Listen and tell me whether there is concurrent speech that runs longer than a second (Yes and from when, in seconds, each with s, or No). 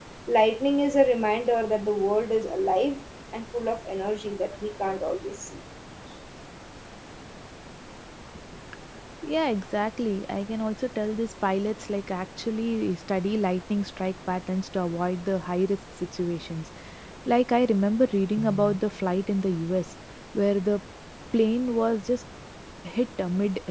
No